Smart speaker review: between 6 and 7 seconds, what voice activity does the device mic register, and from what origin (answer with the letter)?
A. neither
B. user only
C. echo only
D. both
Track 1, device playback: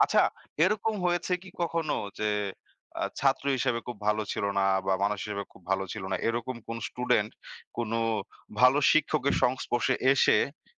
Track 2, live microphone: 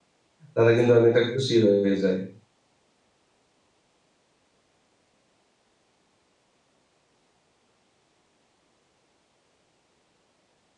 A